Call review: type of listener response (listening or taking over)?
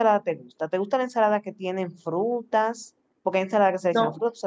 listening